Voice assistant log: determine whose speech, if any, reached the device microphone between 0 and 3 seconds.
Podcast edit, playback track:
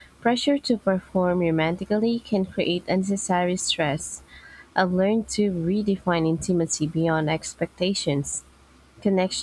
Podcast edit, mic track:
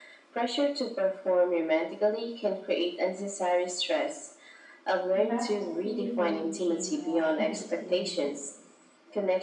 echo only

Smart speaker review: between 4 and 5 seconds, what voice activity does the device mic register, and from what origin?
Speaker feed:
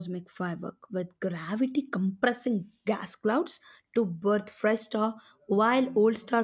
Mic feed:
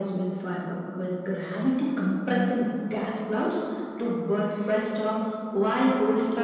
echo only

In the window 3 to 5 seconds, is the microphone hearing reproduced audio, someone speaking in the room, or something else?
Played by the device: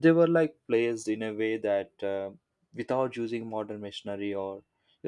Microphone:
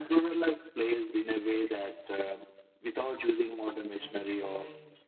both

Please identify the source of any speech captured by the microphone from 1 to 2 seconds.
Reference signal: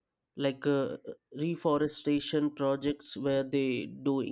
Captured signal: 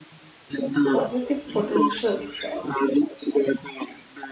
both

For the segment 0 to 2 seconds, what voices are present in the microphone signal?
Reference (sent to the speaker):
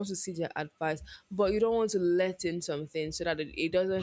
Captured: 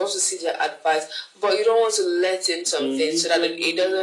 echo only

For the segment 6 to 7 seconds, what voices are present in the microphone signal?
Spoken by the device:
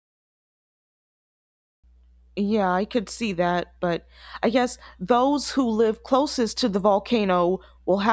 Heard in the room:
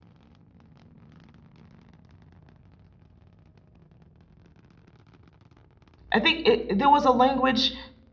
user only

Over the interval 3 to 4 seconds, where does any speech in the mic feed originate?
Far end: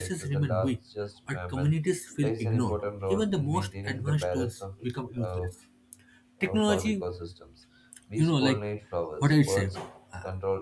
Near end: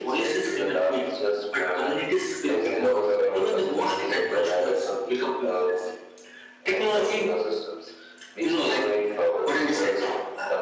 both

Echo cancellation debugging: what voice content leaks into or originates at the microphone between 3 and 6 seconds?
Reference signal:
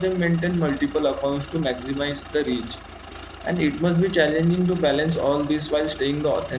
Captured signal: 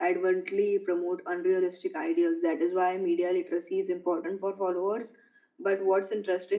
user only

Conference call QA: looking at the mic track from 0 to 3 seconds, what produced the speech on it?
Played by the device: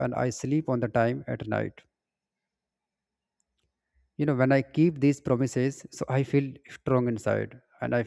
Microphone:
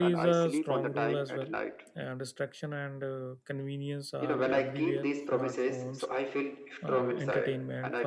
both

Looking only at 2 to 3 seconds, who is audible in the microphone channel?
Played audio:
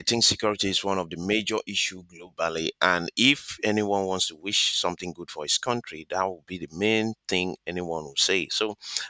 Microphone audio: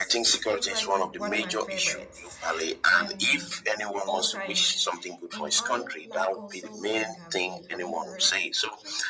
both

